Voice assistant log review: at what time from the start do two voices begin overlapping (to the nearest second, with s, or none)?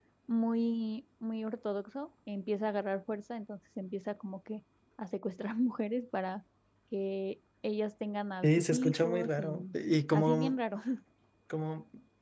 8 s